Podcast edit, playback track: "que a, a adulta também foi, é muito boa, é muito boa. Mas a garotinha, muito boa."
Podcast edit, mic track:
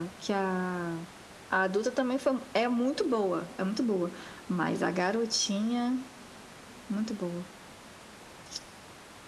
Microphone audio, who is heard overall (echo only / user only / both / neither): echo only